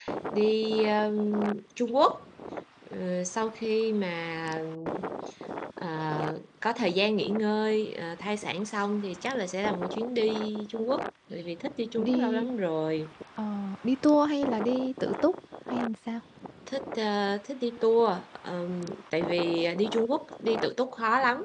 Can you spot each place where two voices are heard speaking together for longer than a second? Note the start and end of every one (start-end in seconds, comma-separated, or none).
none